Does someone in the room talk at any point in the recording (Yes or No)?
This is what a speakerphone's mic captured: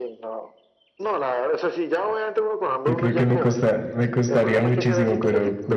Yes